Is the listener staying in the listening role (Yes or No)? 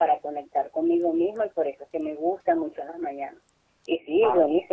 Yes